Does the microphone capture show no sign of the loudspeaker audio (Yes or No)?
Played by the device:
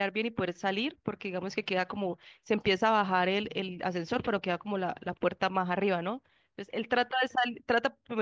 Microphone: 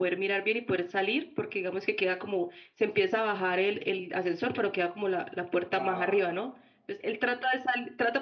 No